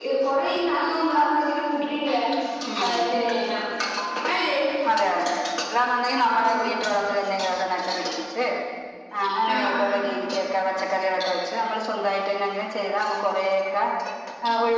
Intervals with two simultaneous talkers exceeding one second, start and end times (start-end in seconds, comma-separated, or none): none